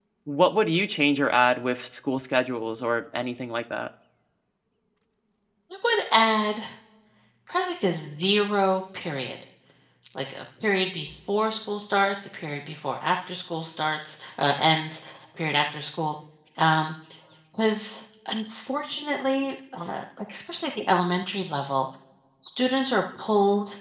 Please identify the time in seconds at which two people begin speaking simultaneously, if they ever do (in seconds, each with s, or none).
none